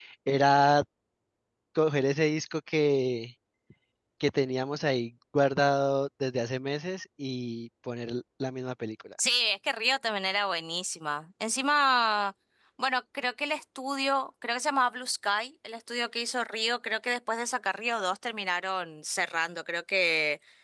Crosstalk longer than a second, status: none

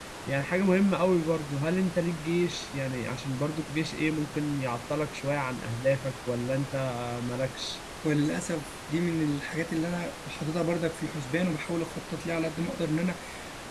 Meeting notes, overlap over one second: none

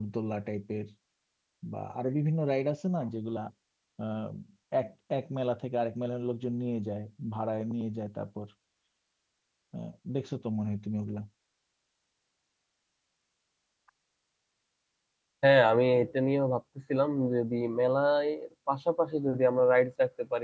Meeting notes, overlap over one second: none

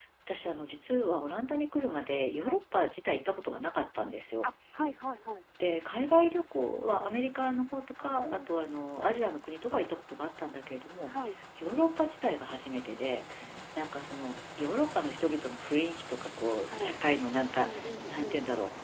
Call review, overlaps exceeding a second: none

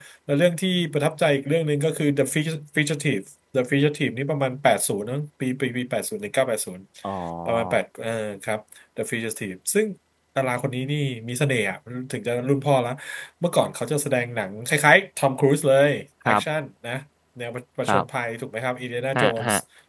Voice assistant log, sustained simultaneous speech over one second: none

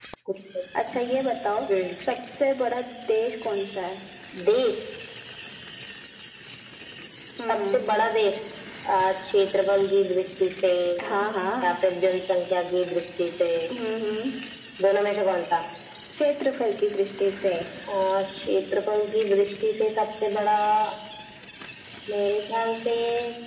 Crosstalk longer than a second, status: none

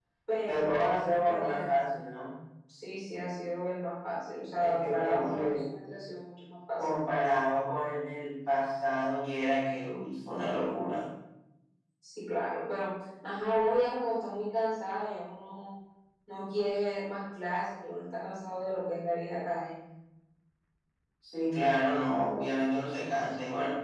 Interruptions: present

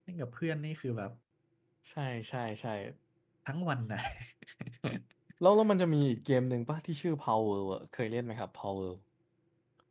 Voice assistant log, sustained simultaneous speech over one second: none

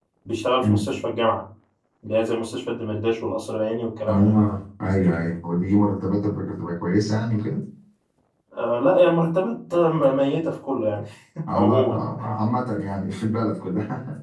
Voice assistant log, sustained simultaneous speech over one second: none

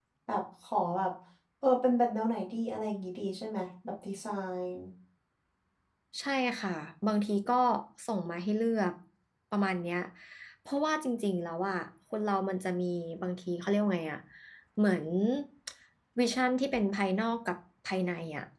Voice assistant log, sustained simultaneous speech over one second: none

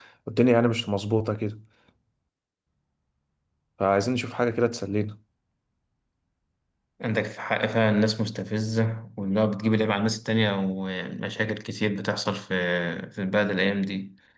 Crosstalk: none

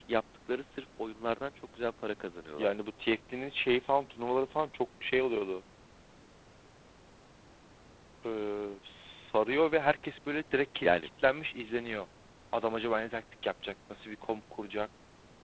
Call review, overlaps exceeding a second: none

